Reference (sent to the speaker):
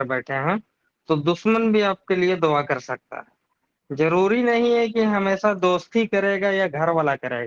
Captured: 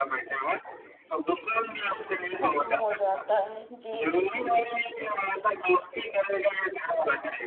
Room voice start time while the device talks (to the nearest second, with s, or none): 2 s